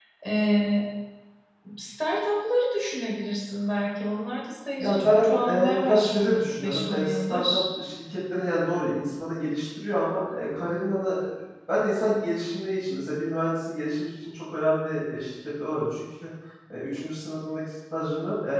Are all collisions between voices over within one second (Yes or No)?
No